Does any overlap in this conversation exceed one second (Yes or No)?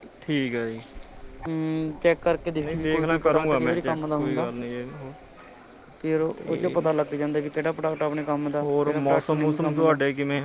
Yes